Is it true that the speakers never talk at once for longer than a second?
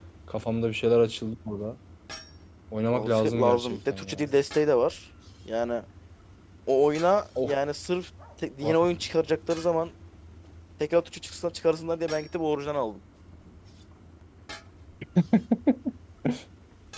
No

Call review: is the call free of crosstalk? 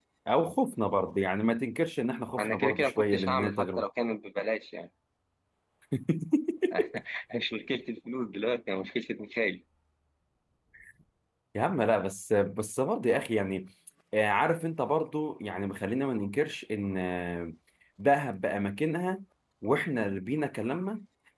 No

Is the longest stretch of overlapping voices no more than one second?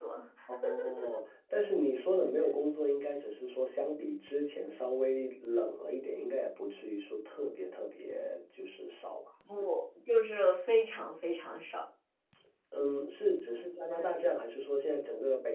Yes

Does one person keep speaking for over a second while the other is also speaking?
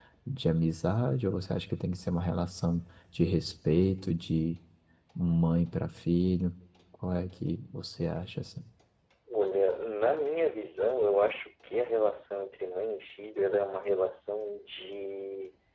No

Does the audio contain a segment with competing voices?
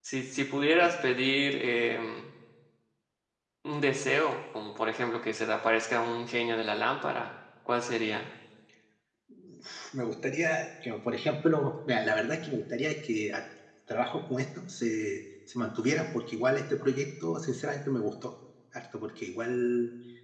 No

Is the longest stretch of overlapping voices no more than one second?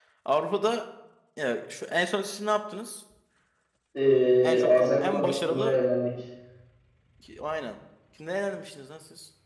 No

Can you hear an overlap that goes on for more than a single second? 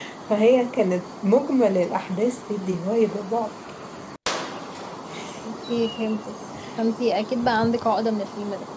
No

